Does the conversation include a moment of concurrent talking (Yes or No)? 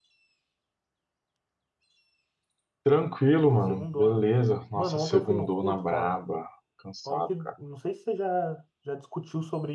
Yes